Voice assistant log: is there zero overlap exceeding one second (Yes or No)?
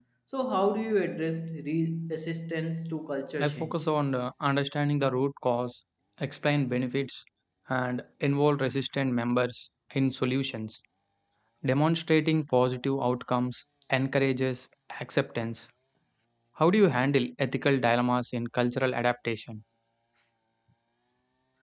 Yes